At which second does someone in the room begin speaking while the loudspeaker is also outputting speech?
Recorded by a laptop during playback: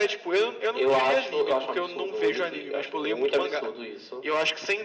none

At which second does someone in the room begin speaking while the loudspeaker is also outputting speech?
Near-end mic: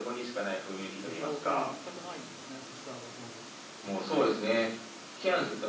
1.0 s

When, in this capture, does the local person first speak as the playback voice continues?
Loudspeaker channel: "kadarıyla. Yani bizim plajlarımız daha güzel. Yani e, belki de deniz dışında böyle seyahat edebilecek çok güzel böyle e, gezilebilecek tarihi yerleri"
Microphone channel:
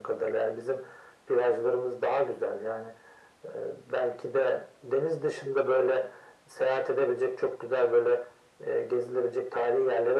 none

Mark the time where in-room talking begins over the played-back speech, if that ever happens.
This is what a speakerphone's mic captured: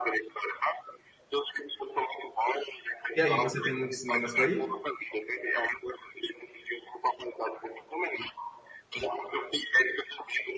3.1 s

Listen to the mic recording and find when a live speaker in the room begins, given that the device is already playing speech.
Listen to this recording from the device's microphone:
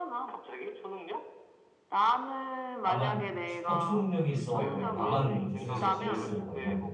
2.8 s

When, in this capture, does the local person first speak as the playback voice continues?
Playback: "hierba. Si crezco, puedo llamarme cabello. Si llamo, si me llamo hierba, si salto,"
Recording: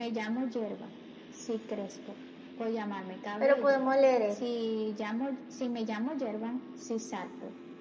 3.4 s

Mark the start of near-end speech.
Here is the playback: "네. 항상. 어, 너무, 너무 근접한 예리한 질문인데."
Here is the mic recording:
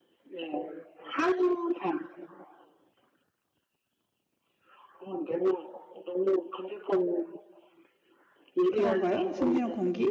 8.7 s

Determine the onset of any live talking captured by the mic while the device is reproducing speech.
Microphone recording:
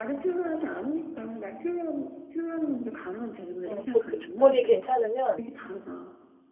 3.6 s

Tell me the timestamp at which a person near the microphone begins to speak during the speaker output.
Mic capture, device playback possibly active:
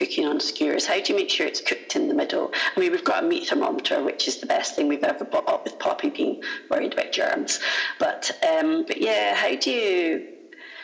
none

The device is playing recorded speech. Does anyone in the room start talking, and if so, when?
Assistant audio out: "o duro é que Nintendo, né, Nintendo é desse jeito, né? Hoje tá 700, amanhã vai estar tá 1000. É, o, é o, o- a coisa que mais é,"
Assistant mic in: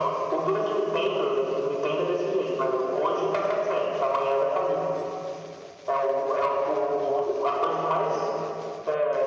7.0 s

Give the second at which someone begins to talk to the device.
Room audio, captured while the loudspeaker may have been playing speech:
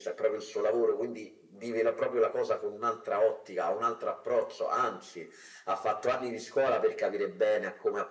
none

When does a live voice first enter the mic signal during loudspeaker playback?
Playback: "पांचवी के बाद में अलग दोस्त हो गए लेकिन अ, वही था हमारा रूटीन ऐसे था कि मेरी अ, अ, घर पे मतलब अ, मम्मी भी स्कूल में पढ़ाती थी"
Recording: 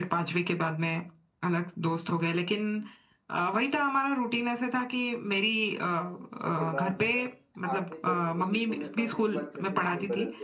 6.5 s

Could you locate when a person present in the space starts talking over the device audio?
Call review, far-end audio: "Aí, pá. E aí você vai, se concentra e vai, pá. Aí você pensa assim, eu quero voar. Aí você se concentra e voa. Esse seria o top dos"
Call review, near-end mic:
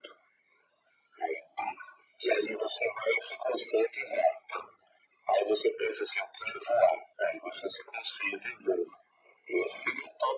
none

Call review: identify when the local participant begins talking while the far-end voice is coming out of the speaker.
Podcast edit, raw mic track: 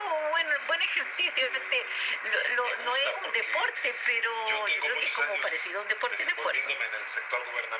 none

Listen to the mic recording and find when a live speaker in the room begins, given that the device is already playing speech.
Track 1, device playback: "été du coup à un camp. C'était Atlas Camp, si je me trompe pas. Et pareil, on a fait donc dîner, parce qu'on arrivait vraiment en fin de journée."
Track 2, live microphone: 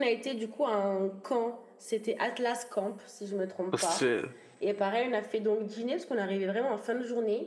3.7 s

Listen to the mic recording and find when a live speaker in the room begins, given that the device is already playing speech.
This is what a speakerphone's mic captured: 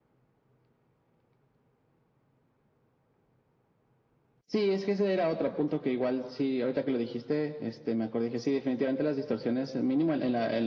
none

